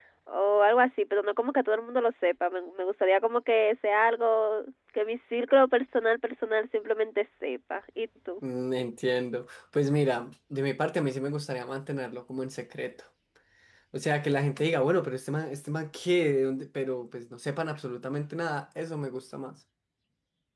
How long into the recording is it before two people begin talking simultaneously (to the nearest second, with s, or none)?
none